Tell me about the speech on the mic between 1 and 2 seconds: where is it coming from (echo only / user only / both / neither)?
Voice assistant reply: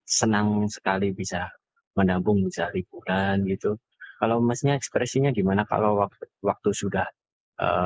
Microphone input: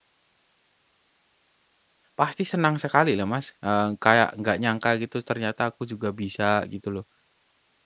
neither